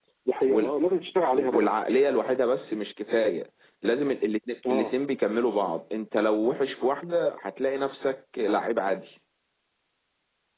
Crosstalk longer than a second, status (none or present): none